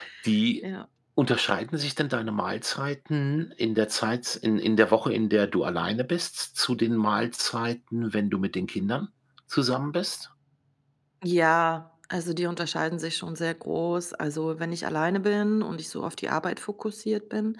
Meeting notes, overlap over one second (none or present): none